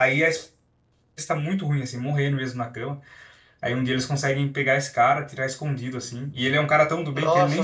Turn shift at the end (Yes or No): Yes